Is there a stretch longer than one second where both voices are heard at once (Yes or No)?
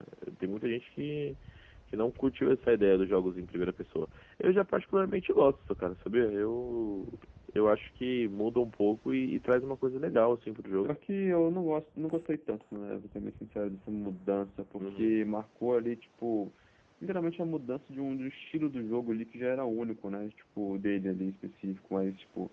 No